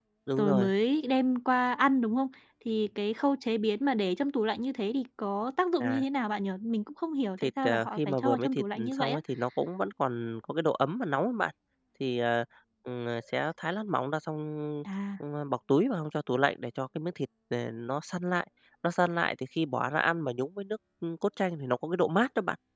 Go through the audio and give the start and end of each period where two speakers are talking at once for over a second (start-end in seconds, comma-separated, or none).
7.4-9.2